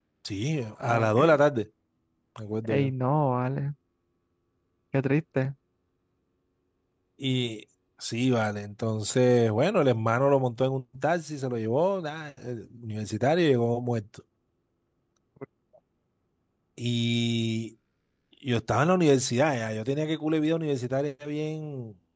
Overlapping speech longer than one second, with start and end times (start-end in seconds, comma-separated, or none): none